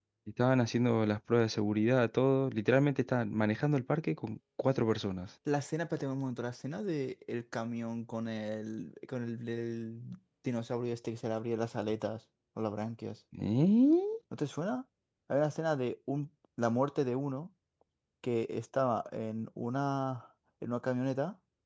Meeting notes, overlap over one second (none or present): none